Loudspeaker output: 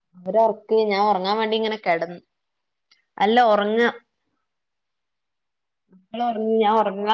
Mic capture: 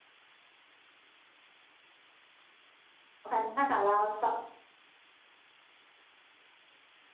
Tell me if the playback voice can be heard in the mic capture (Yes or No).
No